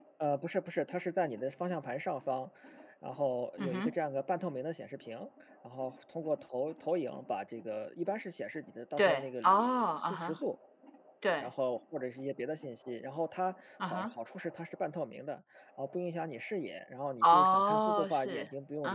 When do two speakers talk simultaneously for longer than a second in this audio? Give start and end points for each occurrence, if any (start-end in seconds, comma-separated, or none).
9.0-10.4, 17.2-18.4